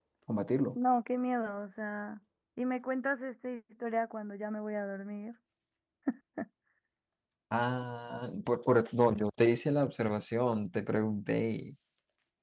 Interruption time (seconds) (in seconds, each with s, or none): none